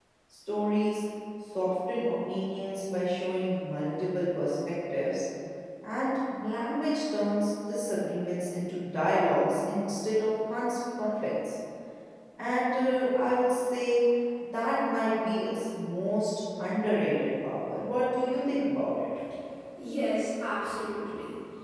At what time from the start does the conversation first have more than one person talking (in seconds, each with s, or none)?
none